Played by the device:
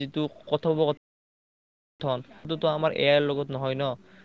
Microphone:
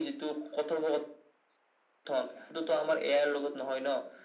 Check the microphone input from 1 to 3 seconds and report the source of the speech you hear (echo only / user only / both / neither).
echo only